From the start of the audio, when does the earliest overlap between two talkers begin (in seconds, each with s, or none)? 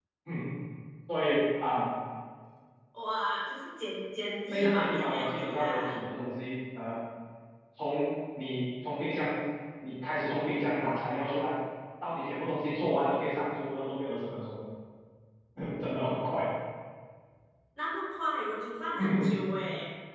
4.5 s